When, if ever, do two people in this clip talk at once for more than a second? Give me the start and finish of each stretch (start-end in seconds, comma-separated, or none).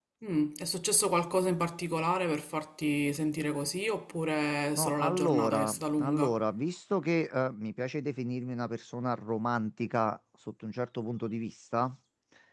4.8-6.4